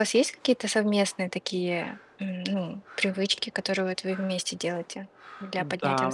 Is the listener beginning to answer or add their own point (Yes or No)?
Yes